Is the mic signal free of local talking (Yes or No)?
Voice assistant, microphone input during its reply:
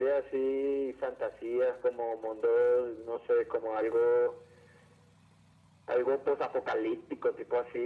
Yes